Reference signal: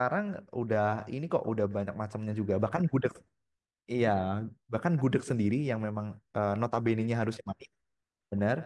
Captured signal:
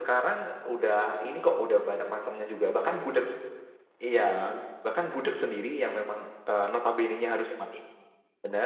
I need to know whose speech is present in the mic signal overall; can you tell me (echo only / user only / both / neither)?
echo only